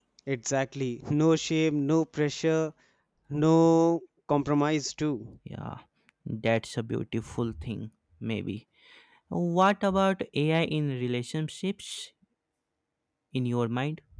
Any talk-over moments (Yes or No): No